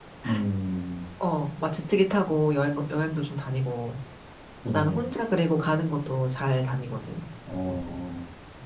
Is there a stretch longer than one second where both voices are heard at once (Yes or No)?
No